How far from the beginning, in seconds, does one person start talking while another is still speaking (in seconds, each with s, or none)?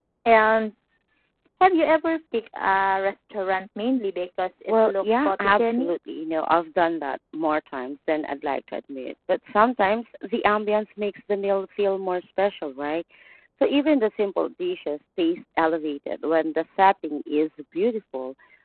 4.7 s